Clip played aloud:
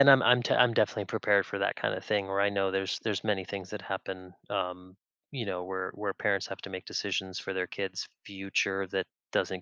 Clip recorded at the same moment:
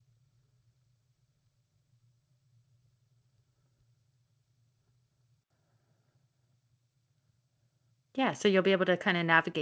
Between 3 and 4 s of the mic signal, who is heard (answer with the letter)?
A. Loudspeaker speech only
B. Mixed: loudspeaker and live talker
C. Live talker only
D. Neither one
D